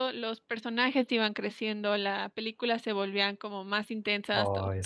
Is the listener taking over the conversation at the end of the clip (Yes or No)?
No